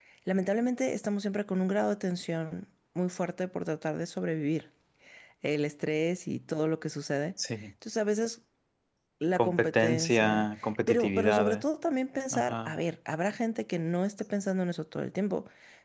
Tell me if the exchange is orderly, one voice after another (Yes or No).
No